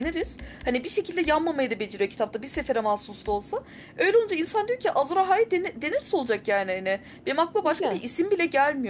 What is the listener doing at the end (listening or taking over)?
listening